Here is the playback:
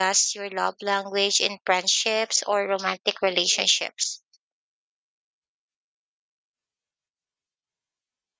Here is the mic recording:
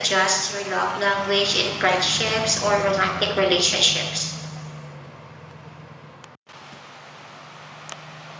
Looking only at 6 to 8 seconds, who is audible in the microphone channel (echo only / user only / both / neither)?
neither